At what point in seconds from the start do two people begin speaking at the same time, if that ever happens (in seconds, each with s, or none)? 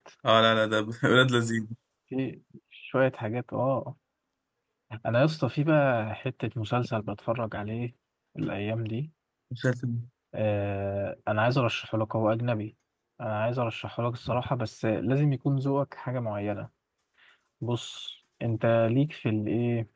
none